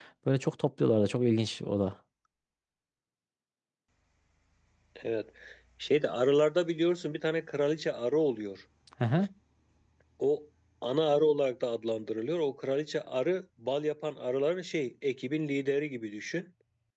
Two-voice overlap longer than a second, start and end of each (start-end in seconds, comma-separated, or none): none